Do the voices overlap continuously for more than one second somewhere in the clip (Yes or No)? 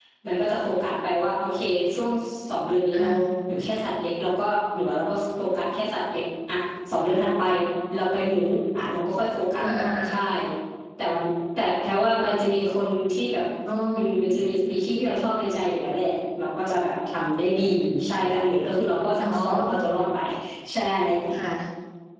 No